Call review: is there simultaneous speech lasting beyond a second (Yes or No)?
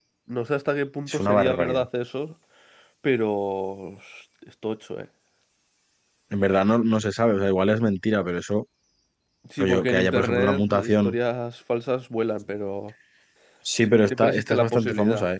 Yes